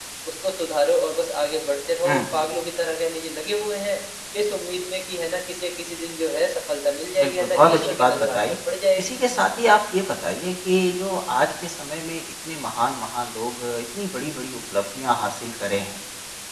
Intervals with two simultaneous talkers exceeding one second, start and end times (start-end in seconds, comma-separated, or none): 7.2-8.6